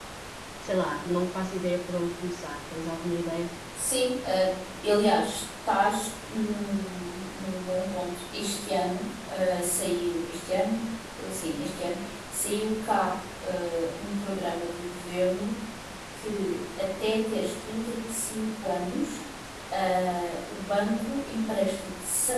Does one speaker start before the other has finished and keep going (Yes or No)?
No